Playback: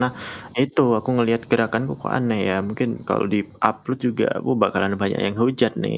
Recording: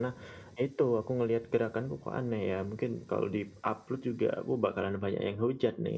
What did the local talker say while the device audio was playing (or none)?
none